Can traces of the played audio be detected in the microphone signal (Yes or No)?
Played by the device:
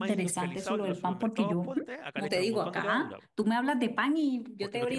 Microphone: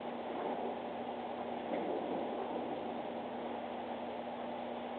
No